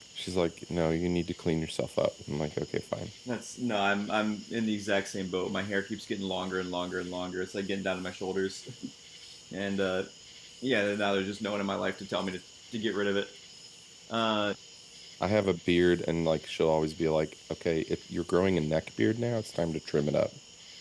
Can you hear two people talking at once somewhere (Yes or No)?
No